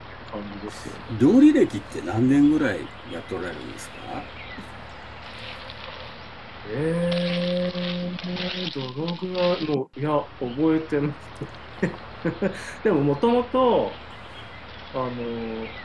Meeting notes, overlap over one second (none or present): none